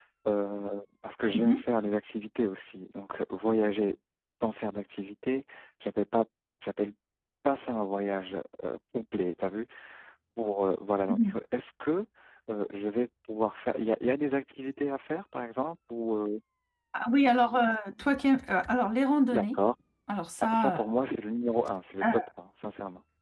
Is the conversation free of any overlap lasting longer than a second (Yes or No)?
Yes